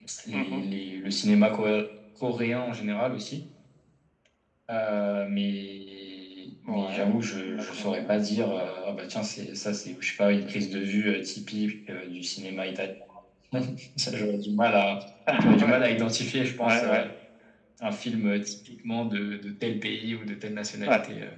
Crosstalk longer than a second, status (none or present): present